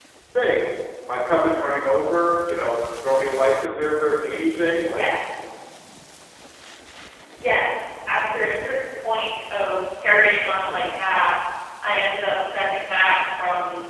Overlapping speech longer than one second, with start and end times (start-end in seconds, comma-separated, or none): none